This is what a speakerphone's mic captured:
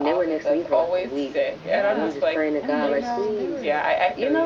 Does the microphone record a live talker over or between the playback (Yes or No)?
Yes